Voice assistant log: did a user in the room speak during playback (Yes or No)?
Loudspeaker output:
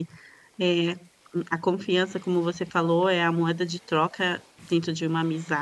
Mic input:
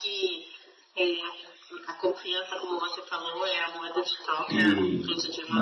Yes